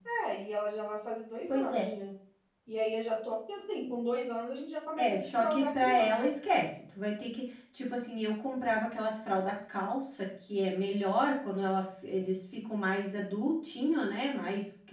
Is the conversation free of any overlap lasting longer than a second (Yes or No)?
No